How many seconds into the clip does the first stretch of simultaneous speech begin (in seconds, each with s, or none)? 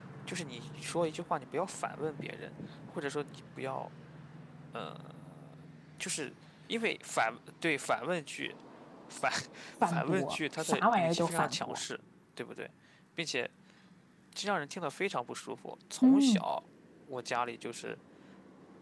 9.8 s